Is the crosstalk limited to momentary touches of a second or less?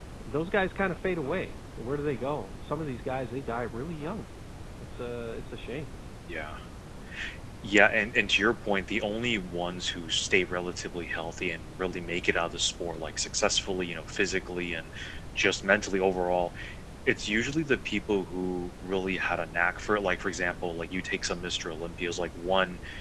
Yes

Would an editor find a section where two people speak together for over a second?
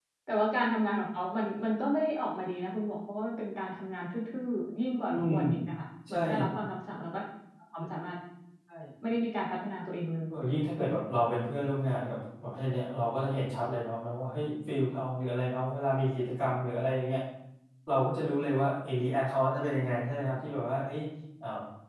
No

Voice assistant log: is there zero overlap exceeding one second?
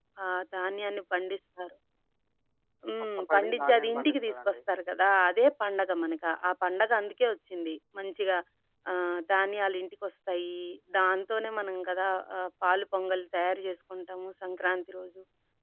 No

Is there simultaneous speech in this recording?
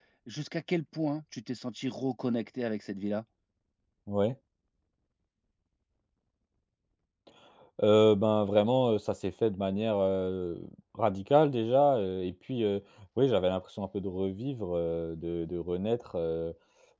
No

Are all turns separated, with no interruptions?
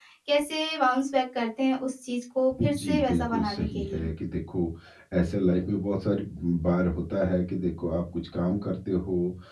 No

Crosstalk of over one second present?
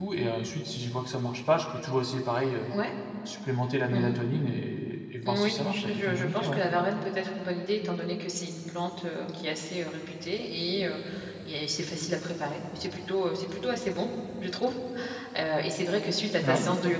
Yes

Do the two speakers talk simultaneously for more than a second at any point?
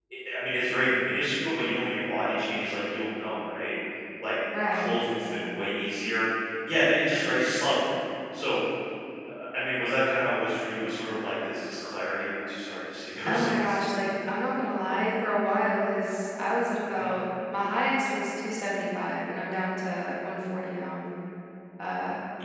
No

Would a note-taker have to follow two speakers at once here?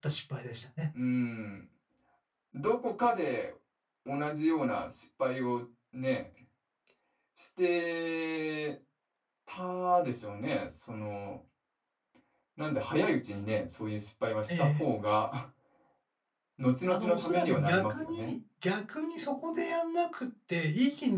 Yes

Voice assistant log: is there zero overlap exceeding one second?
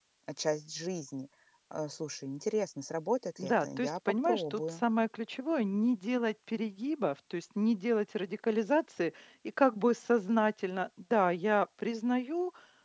No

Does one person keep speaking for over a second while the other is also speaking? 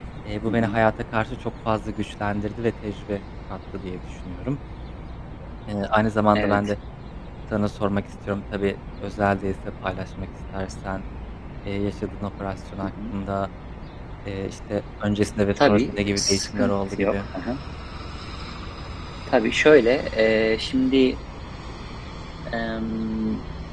Yes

